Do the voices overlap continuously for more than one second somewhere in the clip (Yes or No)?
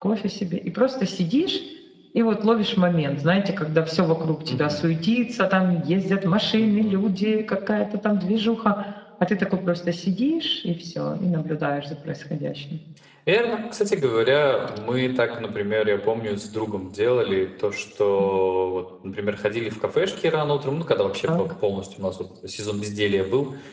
No